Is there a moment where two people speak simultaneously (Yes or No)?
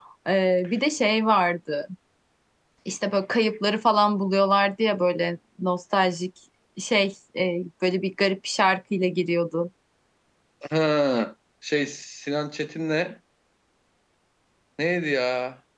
No